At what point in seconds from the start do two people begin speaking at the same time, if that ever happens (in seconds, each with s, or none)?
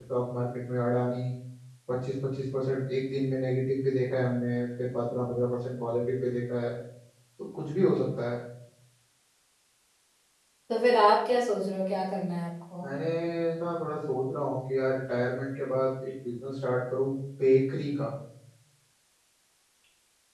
none